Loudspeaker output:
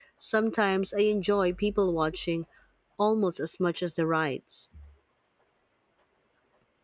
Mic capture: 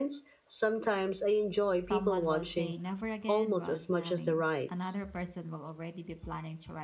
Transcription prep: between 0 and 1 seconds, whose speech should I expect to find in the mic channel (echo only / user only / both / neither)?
echo only